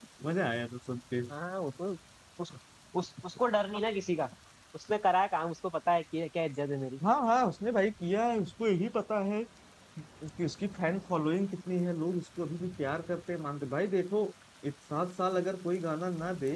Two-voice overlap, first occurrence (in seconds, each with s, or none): none